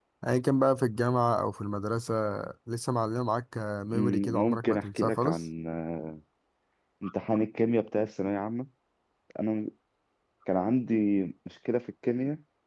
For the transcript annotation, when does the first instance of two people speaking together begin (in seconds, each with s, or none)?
3.9 s